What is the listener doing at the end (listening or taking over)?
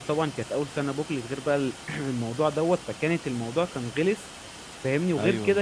listening